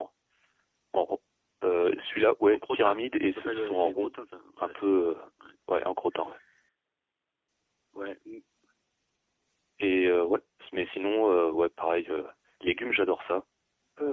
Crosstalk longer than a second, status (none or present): present